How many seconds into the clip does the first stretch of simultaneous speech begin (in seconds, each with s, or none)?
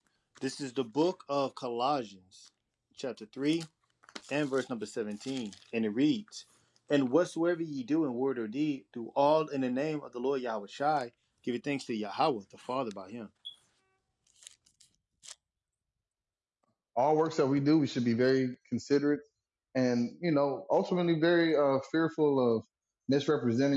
none